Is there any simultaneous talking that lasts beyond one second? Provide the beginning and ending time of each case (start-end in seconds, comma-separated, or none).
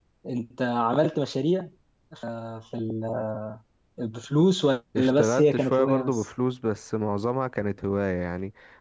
5.0-6.3